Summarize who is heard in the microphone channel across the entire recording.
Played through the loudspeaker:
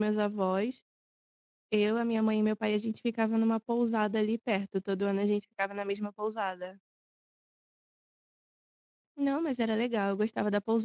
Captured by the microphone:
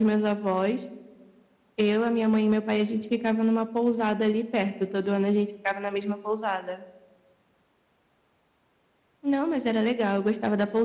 echo only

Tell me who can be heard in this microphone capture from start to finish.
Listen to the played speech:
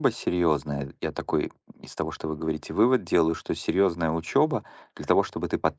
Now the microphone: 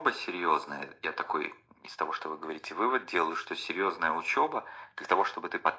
echo only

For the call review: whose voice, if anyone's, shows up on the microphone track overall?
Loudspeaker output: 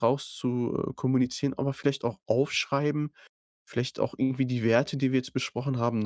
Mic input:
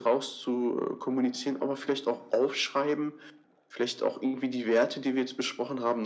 echo only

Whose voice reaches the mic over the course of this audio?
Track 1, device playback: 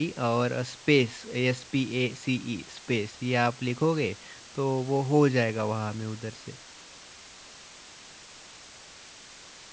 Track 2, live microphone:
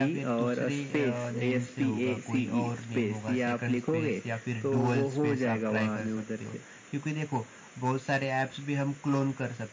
both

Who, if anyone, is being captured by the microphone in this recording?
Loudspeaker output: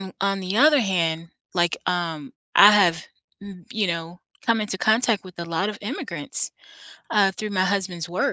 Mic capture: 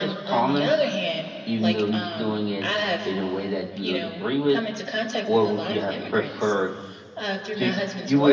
both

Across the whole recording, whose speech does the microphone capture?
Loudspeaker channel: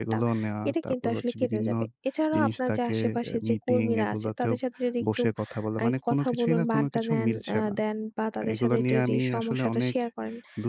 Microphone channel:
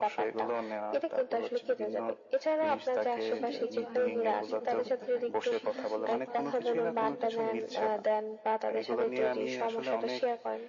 both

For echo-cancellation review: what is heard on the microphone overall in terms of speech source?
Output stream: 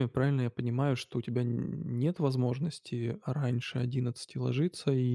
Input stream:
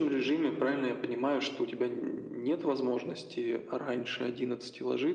echo only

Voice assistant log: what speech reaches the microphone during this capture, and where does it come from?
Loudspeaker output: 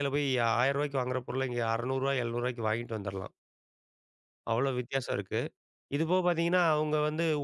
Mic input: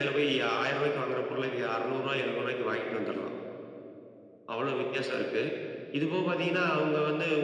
echo only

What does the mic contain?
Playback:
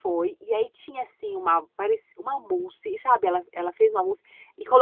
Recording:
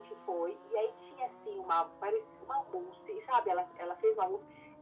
echo only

